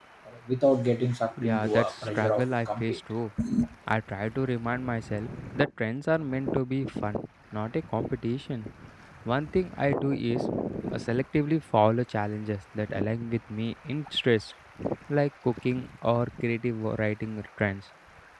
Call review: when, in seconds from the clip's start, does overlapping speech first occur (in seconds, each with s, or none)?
1.4 s